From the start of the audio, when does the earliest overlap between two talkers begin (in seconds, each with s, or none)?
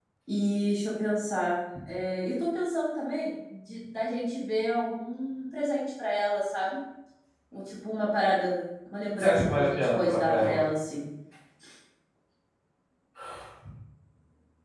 9.2 s